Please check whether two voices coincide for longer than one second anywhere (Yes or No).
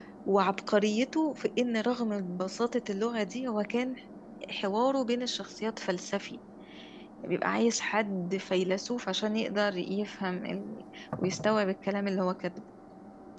No